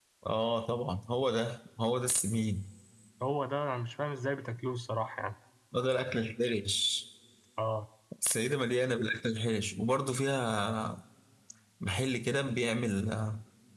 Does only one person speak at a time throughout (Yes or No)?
Yes